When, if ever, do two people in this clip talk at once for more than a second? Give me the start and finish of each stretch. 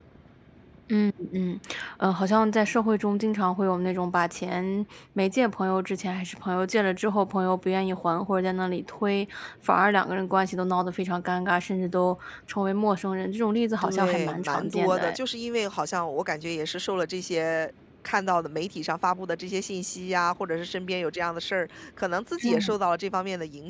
13.8-15.2

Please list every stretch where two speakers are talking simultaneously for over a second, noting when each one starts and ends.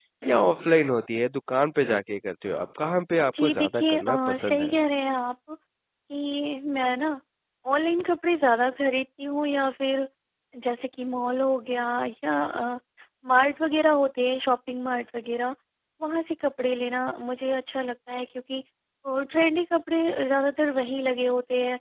3.4-4.7

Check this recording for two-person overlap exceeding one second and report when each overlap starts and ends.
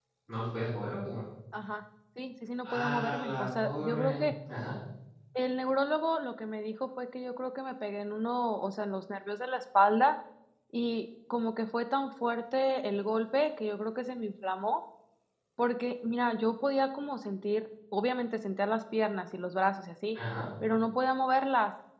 2.7-4.1

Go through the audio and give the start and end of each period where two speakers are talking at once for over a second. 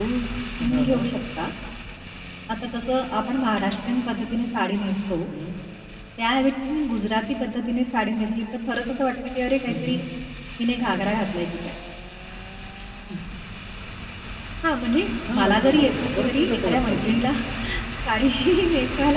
15.3-17.3

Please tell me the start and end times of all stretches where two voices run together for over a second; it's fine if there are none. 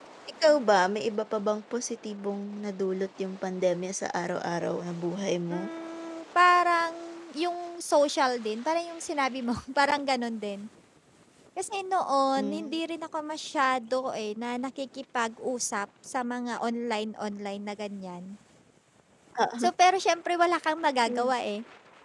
none

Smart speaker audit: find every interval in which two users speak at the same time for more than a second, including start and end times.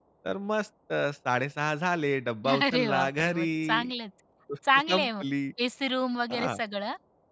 2.5-3.9

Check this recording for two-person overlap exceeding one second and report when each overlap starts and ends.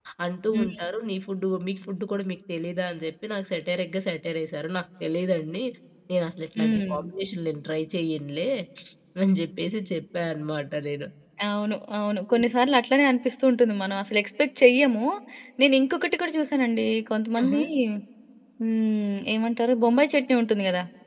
none

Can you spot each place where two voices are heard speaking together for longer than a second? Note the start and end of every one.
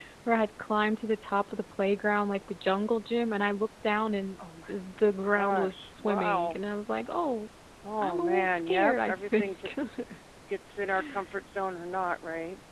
5.3-6.6, 8.0-9.7

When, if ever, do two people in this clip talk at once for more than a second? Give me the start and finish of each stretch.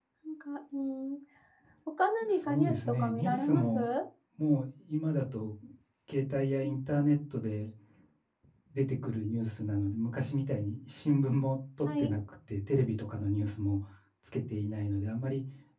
2.3-3.8

